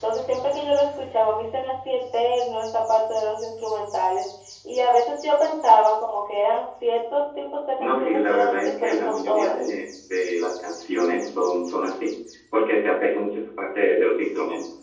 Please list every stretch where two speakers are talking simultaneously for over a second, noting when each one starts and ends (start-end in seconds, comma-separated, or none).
7.8-9.6